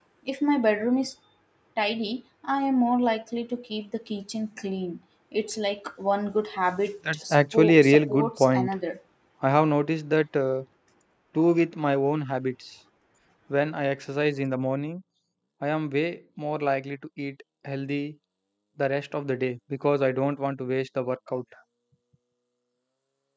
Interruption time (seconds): 7 s

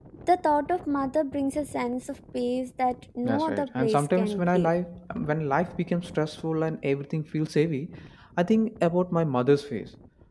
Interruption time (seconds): 3 s

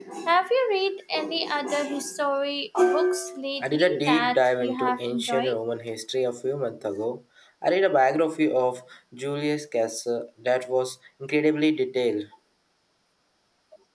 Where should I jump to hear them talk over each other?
4 s

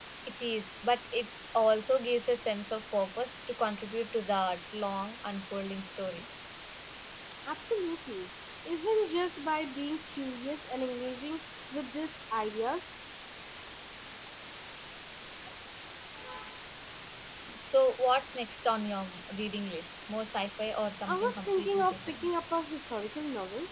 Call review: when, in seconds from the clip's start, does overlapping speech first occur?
21 s

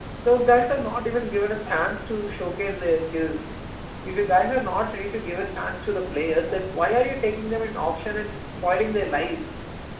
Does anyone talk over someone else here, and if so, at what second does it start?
none

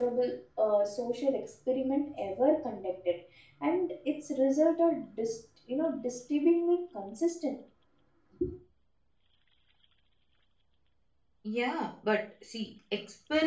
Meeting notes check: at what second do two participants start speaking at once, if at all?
none

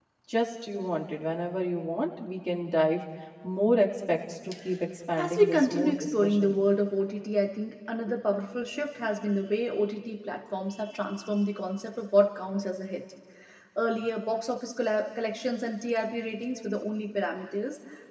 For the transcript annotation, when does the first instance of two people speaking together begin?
5 s

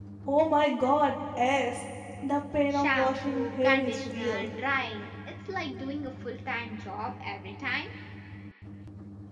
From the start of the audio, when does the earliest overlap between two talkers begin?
3 s

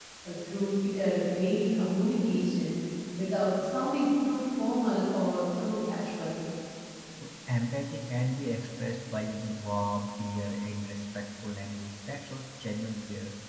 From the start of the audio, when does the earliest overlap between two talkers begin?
none

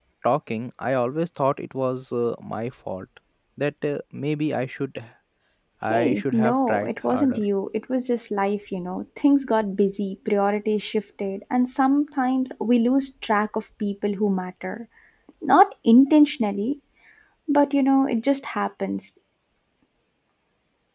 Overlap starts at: 6 s

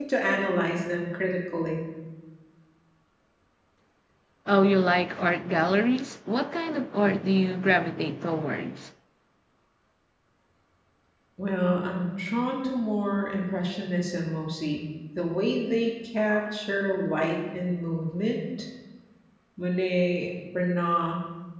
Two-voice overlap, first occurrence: none

